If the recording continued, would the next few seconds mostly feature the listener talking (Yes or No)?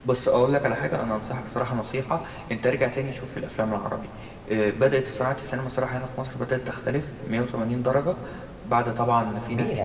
Yes